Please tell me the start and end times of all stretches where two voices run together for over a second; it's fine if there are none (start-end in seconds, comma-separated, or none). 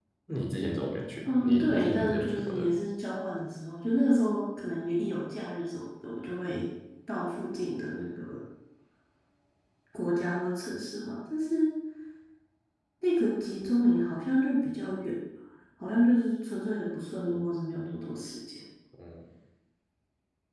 1.3-2.8